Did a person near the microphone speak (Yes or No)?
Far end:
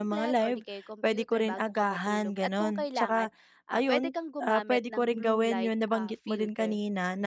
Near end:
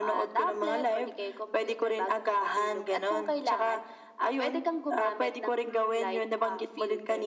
No